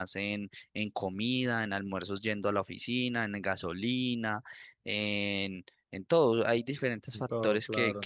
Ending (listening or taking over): listening